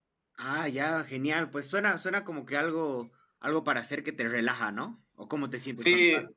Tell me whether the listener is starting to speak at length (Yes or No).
Yes